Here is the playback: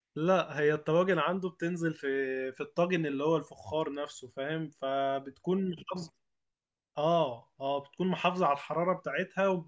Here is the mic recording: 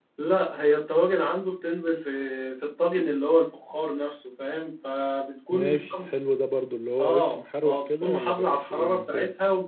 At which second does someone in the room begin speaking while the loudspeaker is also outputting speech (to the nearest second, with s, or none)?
5 s